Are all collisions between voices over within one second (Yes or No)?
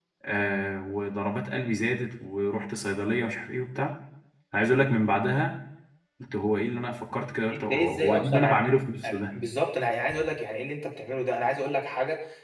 No